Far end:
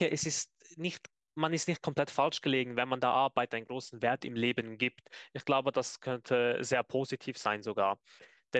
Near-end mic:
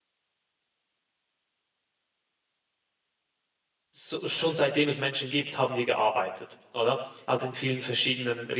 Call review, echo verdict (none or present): none